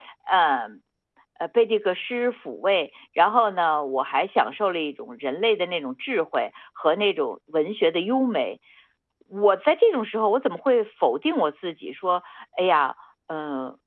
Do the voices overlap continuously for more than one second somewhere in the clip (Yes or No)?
No